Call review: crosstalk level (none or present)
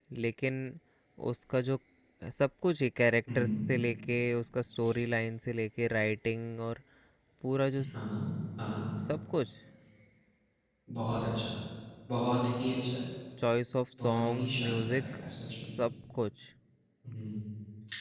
present